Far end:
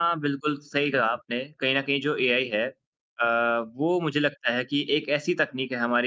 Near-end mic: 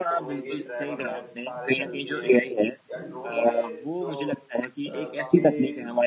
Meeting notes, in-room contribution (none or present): present